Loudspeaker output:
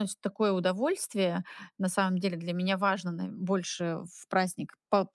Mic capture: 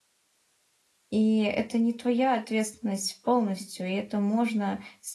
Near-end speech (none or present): present